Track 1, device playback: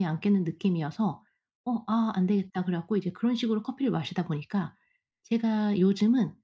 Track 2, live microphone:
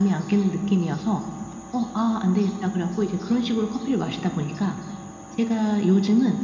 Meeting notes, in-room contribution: none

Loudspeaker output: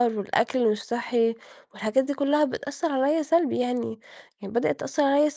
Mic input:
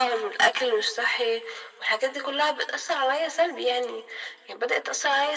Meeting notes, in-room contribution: none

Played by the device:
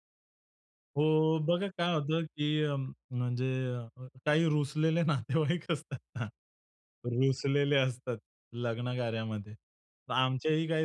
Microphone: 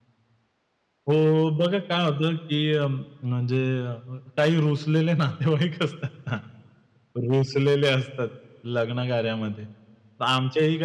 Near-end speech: none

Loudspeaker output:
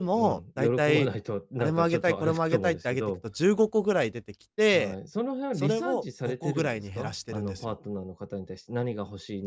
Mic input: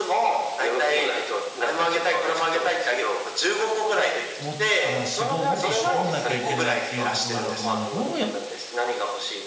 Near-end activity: present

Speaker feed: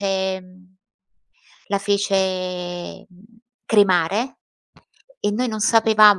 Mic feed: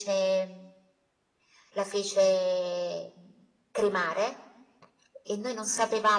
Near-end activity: none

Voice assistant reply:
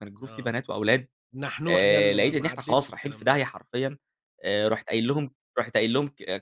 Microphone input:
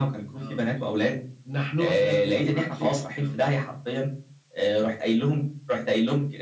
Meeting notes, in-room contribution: none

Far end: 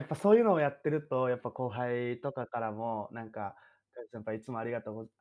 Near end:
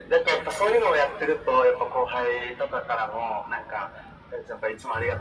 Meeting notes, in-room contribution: none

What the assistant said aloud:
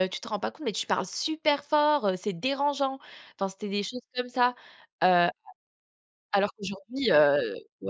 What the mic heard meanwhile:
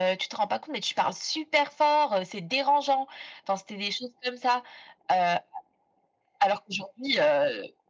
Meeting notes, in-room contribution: none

